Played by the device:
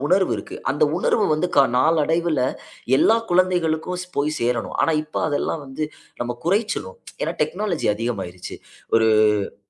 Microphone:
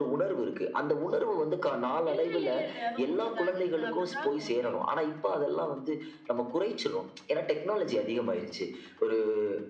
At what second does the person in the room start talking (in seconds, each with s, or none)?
2.1 s